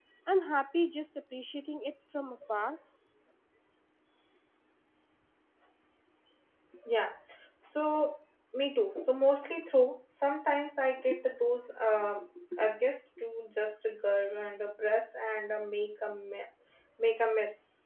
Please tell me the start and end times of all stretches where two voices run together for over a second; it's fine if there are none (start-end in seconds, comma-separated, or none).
none